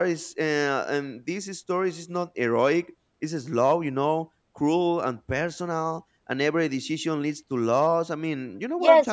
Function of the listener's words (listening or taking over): taking over